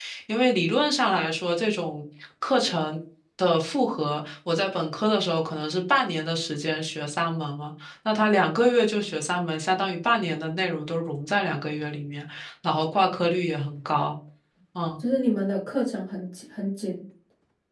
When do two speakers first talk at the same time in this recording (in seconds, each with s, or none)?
none